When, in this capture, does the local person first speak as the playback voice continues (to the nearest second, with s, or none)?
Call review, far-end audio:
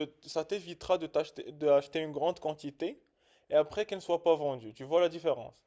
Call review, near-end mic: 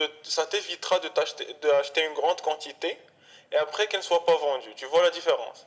none